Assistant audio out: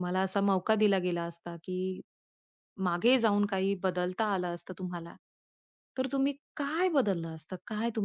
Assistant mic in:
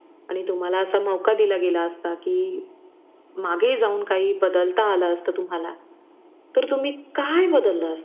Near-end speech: none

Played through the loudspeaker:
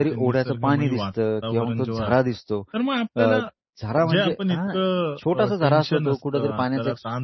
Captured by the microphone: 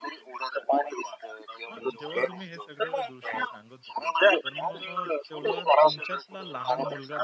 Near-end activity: present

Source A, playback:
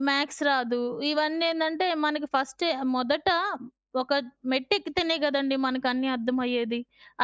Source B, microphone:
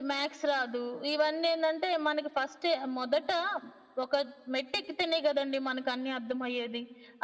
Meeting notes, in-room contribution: none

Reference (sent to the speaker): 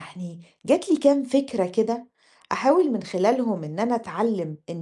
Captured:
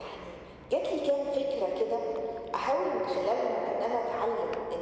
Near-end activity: none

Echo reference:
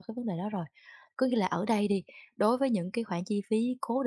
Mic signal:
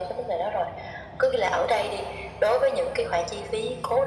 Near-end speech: none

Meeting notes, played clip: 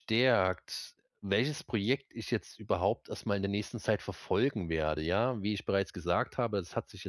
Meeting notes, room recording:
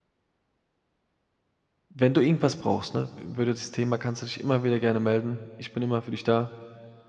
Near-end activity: present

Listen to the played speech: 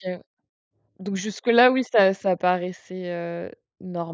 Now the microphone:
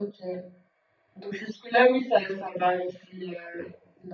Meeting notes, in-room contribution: none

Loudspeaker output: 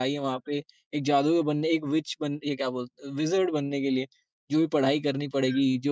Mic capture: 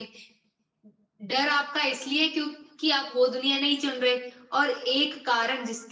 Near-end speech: present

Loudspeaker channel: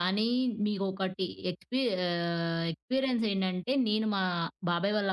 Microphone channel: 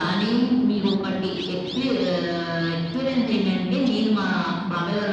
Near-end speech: none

